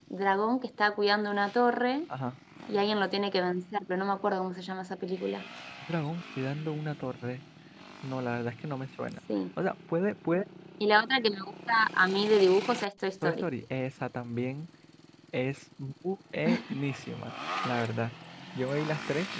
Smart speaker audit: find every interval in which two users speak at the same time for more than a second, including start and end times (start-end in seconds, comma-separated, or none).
none